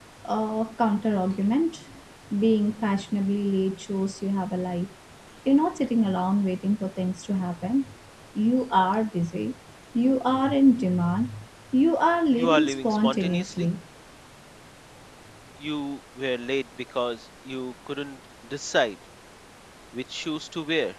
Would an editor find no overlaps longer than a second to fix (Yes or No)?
No